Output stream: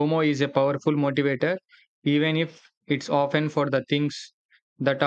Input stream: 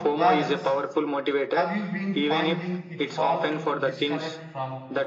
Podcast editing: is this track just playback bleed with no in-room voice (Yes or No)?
No